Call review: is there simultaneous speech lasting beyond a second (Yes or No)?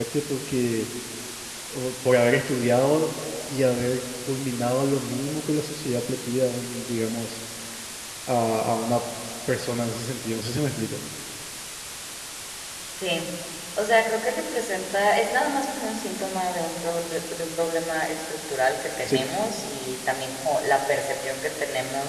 No